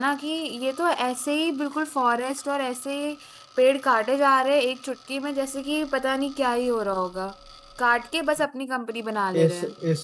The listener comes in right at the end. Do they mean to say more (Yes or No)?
Yes